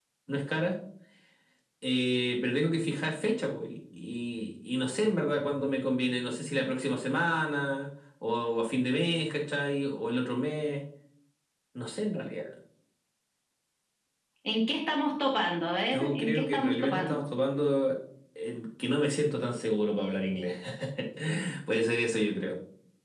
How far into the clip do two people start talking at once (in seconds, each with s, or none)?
15.9 s